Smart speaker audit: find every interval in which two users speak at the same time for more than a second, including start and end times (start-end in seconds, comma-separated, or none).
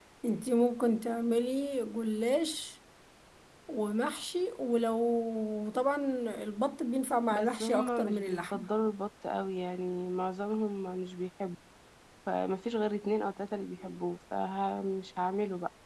7.3-8.7